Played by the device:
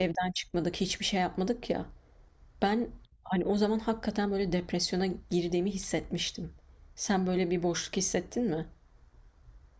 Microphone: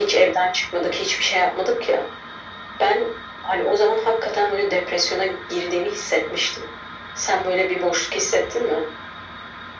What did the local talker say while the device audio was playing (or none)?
none